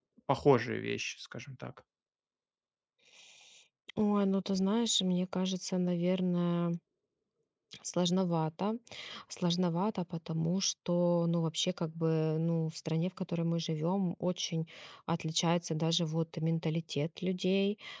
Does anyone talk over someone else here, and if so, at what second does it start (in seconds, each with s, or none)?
none